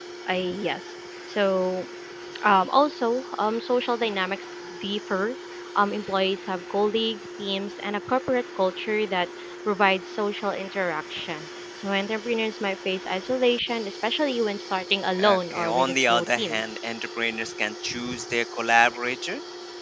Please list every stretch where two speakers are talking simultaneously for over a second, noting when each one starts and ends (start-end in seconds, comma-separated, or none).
15.2-16.6